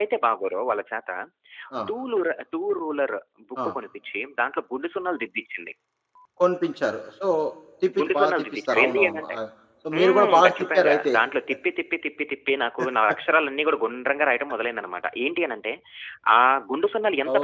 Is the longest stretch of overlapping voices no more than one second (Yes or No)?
No